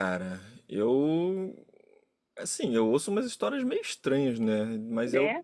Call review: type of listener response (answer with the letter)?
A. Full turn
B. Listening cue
B